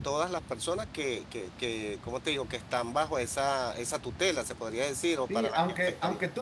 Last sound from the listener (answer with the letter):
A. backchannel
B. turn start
B